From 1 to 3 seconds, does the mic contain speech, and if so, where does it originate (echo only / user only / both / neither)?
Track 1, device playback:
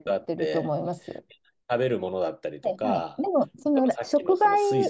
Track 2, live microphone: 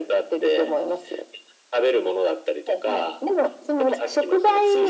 echo only